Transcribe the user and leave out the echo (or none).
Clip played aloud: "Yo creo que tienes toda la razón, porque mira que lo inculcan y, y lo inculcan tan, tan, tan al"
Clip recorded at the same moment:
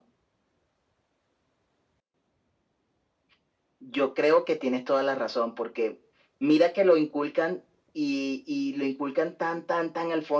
none